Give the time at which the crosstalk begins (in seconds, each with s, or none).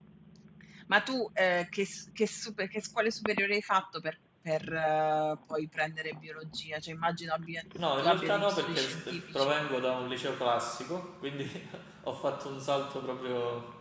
7.8 s